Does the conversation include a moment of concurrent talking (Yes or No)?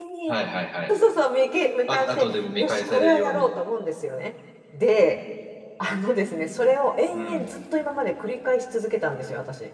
Yes